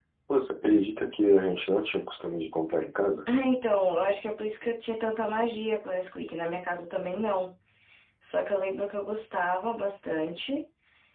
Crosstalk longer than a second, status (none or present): none